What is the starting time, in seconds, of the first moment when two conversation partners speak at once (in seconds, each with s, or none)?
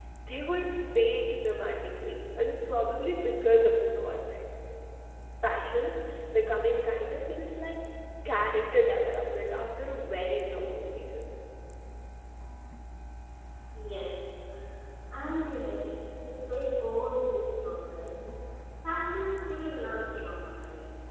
none